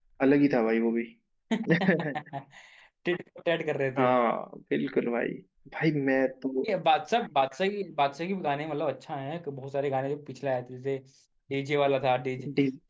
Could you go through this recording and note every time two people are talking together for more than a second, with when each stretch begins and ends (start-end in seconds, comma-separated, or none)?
none